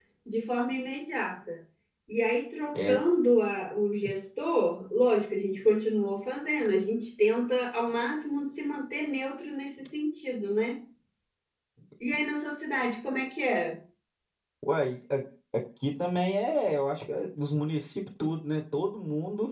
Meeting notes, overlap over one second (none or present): none